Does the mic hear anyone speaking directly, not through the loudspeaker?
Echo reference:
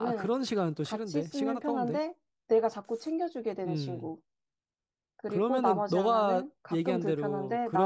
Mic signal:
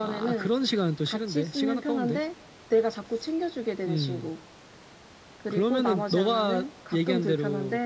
No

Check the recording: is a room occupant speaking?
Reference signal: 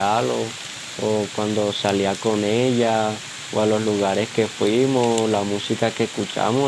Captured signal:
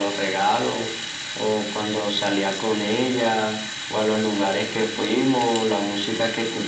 No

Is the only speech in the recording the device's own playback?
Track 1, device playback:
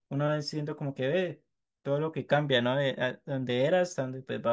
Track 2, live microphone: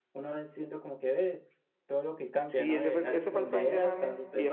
No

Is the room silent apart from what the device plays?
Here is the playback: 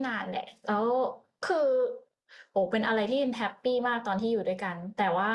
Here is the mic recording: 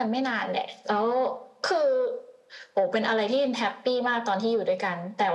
Yes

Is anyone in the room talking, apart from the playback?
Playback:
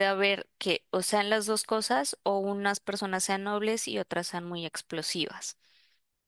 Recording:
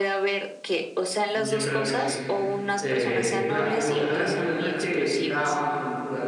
Yes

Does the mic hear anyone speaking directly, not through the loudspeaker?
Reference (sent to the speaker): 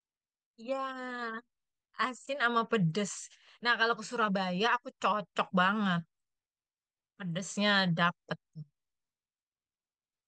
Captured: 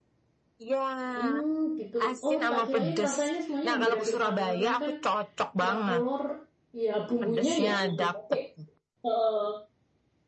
Yes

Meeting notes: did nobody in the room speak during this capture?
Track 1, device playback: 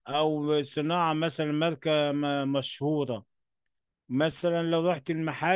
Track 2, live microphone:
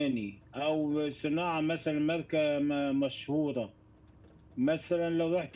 Yes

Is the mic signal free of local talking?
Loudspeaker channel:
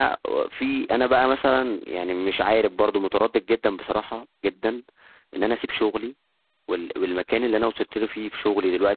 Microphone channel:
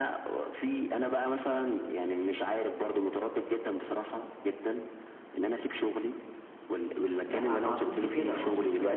No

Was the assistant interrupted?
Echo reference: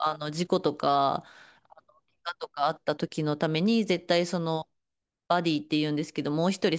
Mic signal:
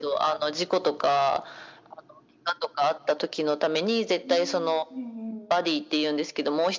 Yes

